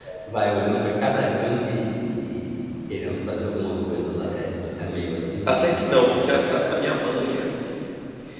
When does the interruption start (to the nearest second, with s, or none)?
none